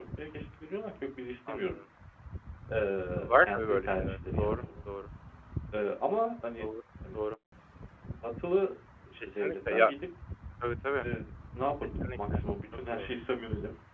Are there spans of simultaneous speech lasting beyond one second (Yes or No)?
Yes